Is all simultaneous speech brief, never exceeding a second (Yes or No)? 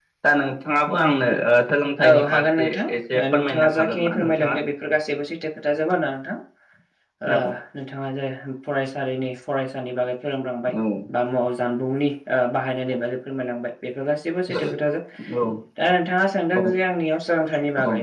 No